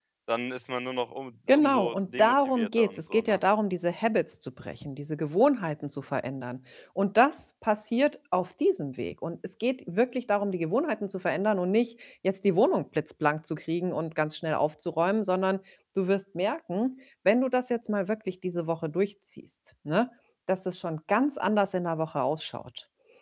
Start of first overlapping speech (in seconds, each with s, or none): 1.5 s